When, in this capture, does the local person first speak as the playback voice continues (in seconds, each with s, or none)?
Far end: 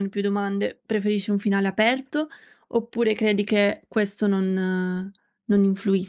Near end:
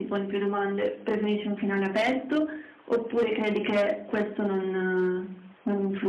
none